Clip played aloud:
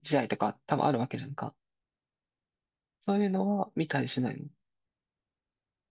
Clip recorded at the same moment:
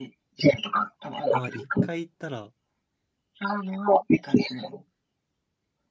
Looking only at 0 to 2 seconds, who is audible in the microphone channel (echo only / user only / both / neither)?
both